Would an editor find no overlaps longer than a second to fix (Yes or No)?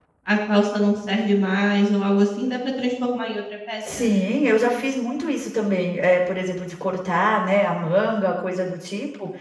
Yes